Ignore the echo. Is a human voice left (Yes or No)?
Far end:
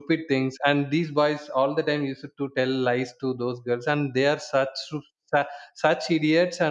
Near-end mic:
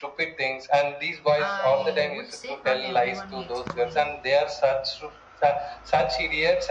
Yes